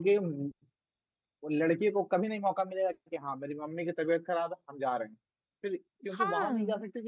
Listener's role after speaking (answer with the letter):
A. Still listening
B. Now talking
A